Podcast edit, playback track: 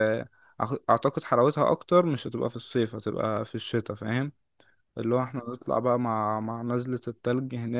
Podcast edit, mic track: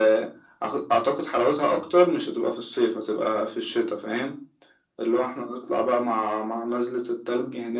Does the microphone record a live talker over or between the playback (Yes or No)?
No